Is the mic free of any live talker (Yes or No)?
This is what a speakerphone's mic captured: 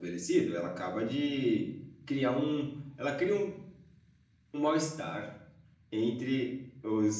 No